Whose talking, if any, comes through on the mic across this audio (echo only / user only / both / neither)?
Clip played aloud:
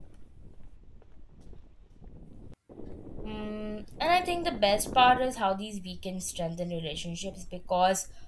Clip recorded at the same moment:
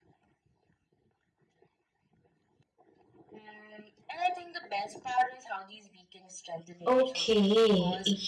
both